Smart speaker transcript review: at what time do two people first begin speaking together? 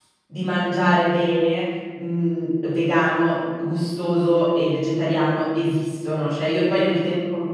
none

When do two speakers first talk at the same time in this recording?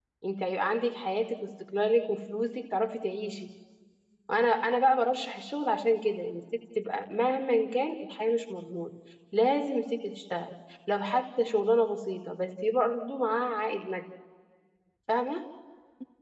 none

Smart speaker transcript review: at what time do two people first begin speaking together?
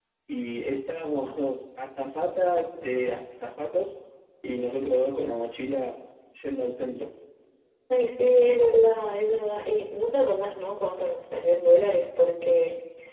none

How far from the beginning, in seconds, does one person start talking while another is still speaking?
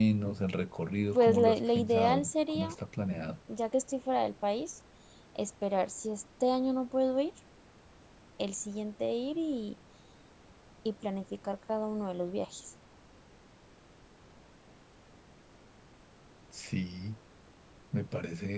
1 s

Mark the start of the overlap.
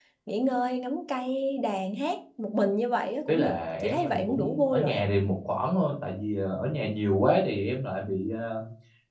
3 s

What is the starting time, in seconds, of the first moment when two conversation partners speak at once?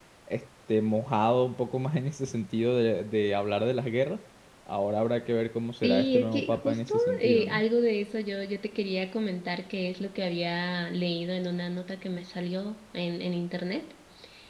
6 s

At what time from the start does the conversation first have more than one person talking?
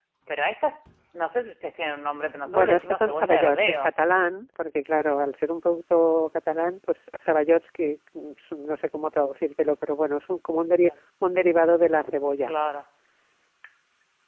2 s

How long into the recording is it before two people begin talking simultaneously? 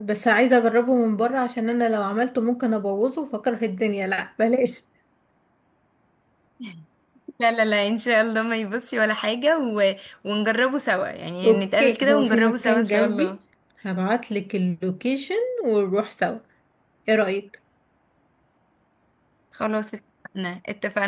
11 s

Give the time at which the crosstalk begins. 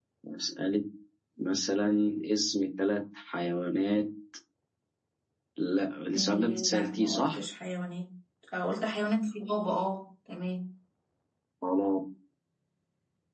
6 s

